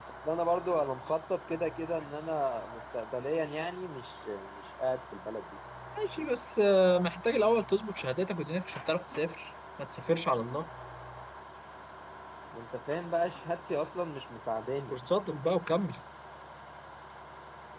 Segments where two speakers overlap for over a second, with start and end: none

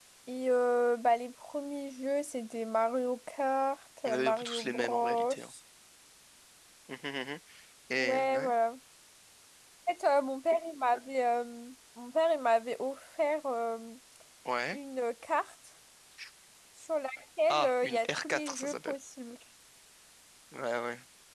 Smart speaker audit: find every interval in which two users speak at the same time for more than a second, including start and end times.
4.0-5.3, 17.5-18.9

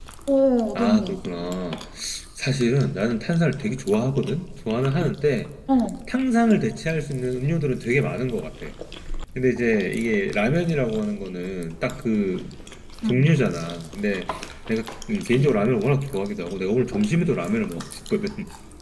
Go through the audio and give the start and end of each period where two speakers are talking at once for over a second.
none

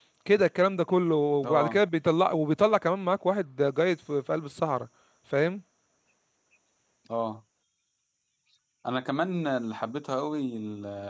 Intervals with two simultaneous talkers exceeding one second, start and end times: none

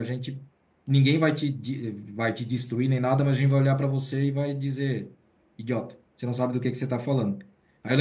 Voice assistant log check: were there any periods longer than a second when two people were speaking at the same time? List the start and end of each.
none

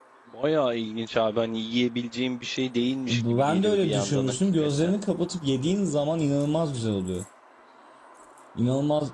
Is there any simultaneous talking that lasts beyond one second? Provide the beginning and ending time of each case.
3.1-4.9

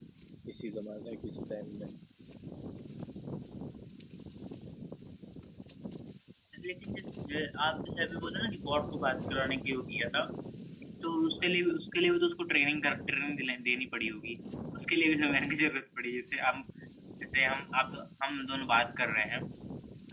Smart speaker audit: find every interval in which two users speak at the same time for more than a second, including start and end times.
none

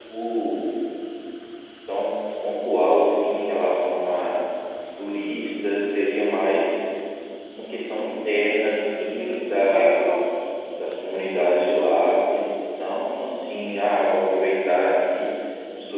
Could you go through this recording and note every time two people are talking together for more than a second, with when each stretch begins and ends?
8.5-10.2

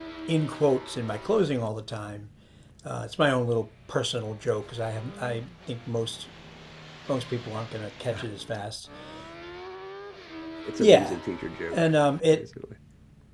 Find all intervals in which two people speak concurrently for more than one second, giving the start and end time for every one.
none

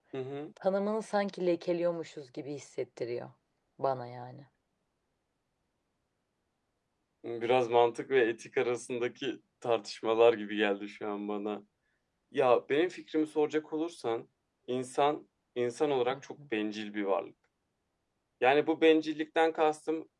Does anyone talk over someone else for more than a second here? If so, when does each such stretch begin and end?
none

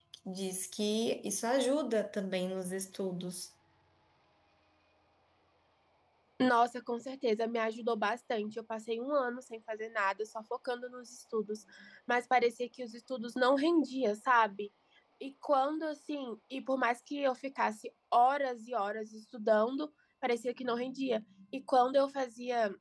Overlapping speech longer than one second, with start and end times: none

